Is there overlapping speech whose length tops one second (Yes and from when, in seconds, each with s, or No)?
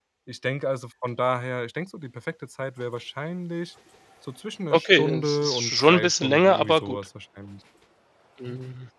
Yes, from 4.7 s